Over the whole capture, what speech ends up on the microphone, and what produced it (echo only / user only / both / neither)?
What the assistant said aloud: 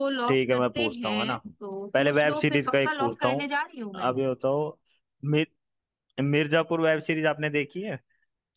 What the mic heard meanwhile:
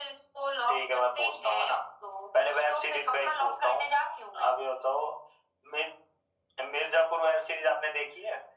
echo only